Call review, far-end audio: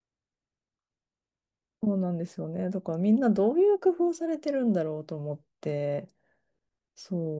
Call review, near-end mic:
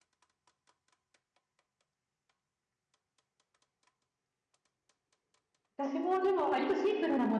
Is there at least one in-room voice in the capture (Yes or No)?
Yes